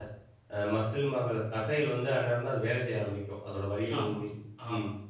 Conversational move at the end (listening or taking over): taking over